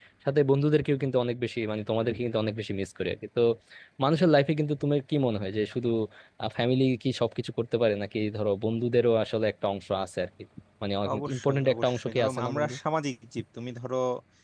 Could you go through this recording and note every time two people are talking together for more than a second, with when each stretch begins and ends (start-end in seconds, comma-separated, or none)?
11.1-12.7